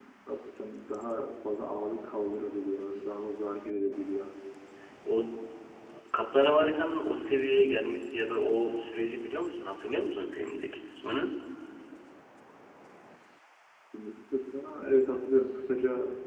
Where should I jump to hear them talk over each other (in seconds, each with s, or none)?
none